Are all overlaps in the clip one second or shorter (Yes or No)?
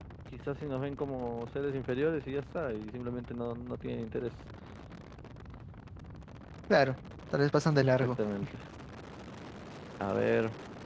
Yes